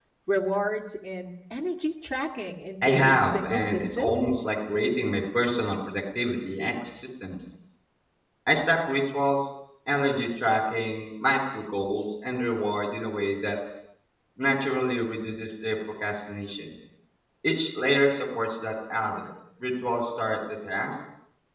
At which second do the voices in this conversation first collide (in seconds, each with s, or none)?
2.8 s